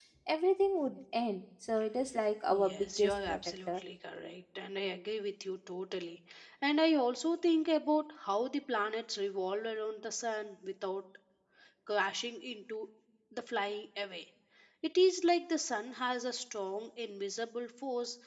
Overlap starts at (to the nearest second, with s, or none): 2 s